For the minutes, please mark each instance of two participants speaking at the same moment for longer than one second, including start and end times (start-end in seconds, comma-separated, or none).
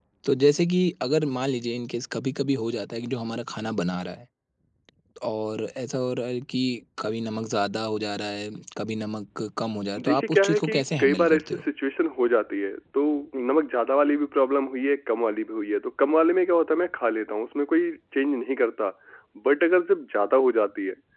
10.0-11.6